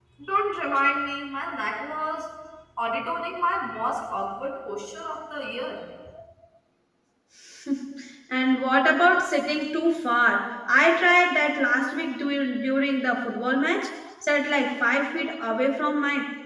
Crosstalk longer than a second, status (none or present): none